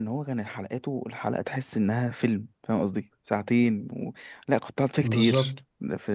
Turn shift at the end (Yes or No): No